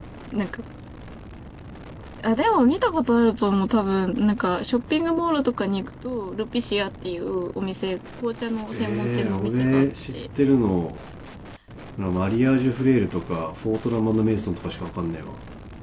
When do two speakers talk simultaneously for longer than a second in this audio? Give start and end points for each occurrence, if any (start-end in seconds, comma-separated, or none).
8.7-10.1